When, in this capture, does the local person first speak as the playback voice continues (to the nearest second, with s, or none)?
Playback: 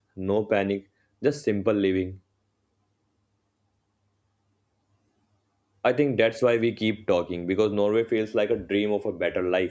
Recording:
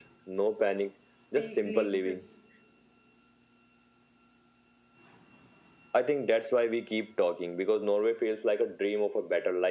1 s